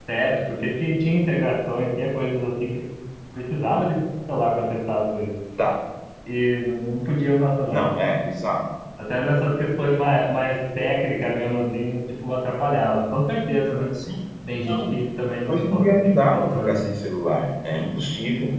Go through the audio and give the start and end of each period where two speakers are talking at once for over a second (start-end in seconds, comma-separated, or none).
15.5-16.9